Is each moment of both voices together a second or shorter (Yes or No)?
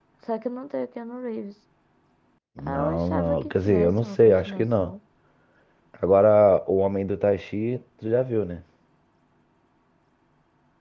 No